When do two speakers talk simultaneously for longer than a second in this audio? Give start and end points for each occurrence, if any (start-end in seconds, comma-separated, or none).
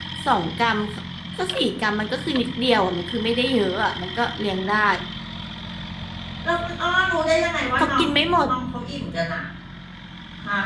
none